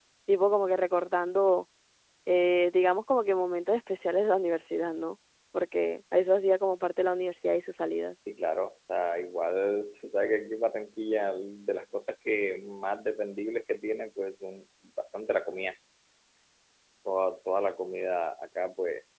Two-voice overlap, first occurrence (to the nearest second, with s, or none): none